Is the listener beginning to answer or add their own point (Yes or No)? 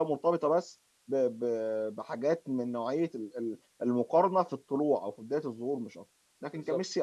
No